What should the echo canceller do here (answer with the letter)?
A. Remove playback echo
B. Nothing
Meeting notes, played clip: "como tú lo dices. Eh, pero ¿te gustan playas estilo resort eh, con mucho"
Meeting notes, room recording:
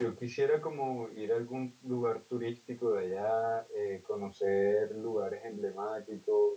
B